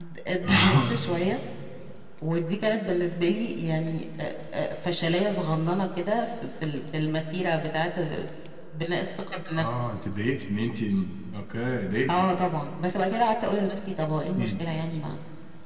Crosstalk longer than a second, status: none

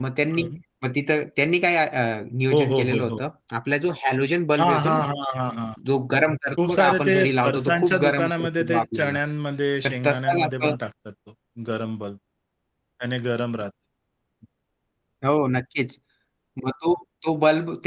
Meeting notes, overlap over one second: present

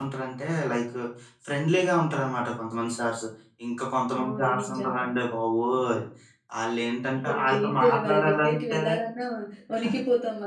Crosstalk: present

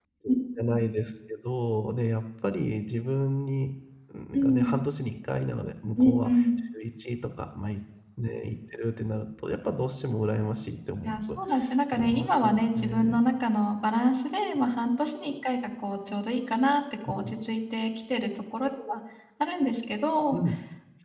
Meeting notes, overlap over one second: present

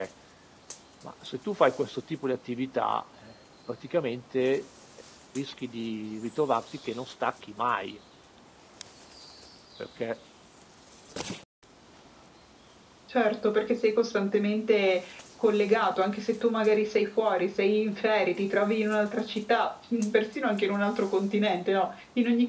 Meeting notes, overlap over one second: none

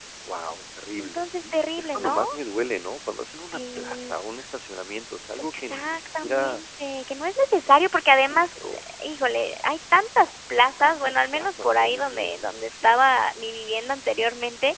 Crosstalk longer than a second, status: present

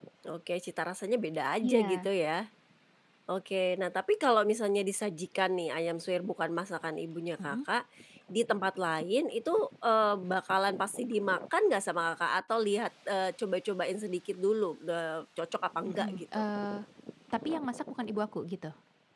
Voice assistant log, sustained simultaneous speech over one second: none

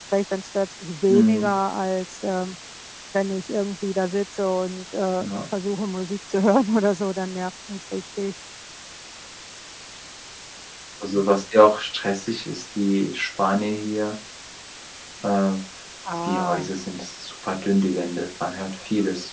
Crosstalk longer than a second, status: none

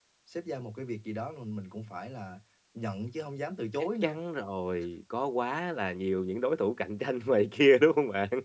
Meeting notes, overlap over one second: none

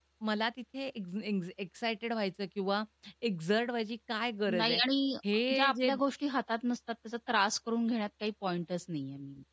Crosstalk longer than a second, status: none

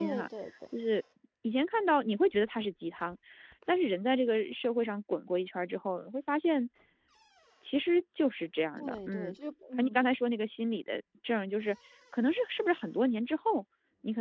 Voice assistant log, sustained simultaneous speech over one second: none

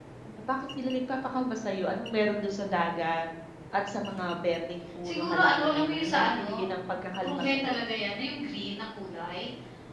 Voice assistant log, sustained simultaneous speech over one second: present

